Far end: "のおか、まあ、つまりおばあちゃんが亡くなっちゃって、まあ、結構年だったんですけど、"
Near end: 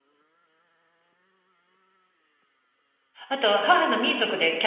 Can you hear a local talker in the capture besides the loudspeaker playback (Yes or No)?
Yes